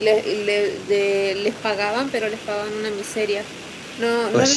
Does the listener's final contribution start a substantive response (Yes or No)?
No